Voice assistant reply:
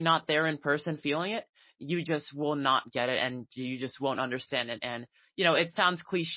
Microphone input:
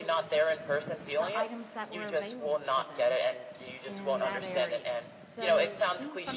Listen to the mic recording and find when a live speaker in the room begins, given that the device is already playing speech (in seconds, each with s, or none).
1.2 s